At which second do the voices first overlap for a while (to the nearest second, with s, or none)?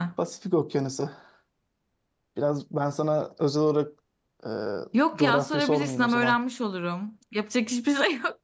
5 s